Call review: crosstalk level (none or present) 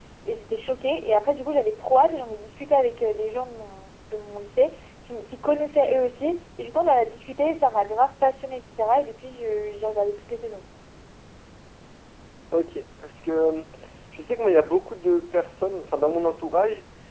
none